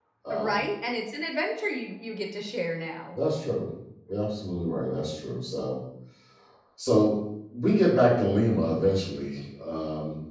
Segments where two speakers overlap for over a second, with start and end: none

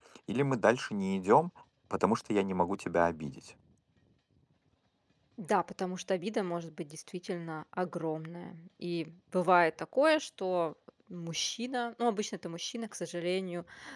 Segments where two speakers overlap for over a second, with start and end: none

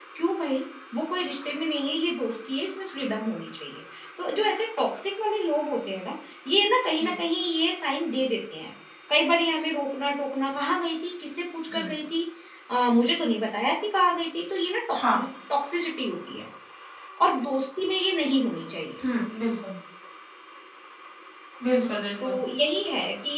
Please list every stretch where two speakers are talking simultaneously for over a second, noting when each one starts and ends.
none

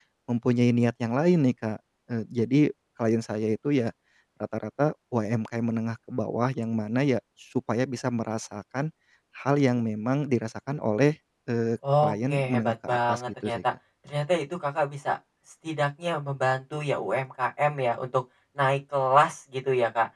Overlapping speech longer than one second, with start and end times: 12.0-13.6

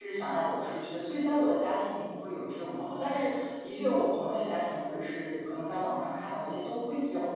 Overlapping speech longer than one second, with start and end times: none

